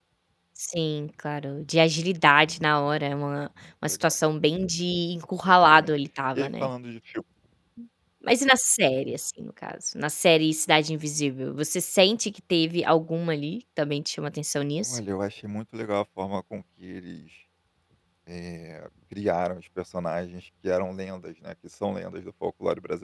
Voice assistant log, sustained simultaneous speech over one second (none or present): none